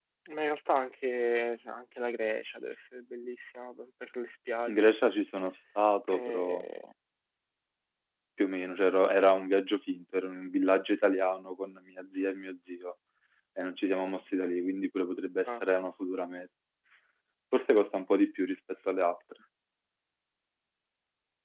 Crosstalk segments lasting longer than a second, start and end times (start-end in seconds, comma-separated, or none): none